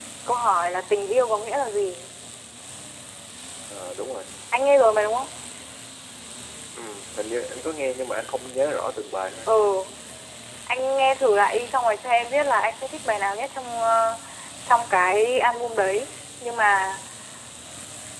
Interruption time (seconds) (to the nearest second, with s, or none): none